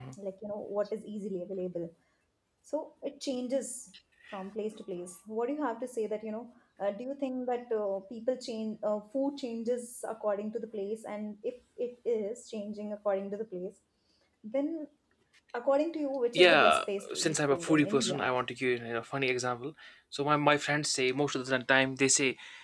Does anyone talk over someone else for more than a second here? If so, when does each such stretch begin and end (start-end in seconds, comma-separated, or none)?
16.3-18.3